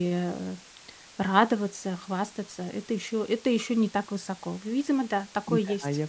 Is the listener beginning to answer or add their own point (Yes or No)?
Yes